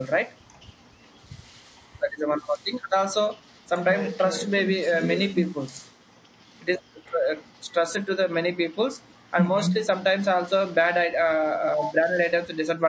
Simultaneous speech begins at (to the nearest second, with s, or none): 4 s